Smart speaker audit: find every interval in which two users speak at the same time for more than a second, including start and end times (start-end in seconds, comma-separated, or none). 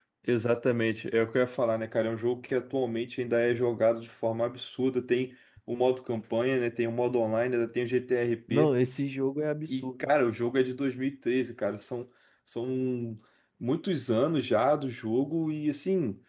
none